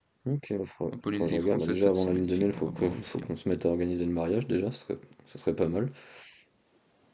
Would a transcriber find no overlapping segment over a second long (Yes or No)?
No